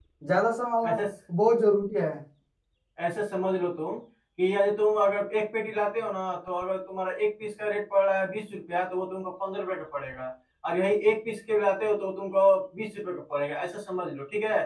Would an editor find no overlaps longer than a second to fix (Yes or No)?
Yes